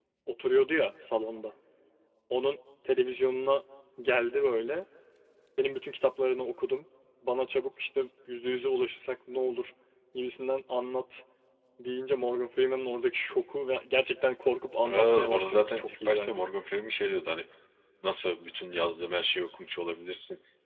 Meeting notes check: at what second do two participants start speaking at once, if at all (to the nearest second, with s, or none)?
15 s